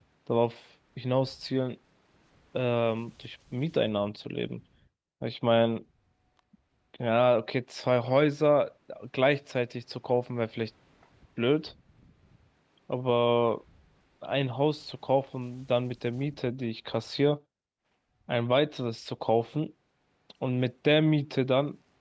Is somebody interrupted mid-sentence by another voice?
No

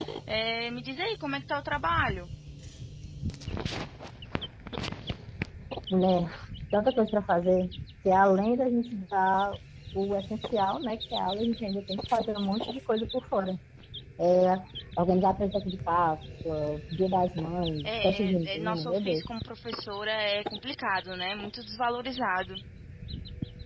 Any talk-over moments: Yes, from 17.8 s

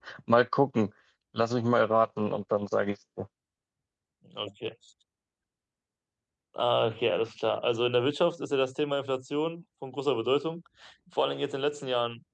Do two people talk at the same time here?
No

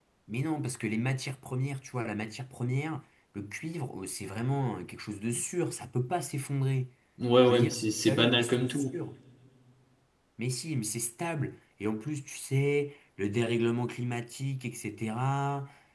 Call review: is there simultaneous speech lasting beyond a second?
Yes, from 7.4 s

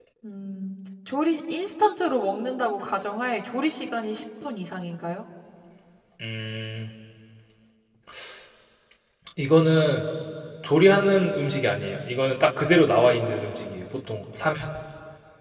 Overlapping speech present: No

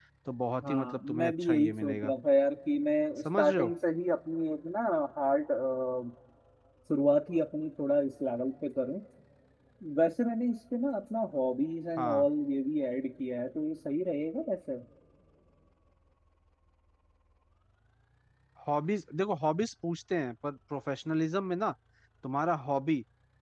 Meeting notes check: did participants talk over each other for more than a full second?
Yes, from 0.6 s

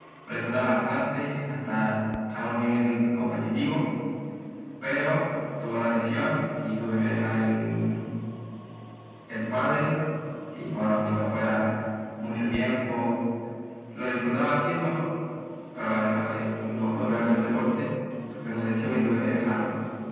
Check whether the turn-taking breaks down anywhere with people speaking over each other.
No

